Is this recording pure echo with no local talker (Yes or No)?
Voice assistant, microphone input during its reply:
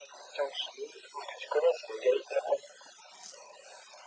Yes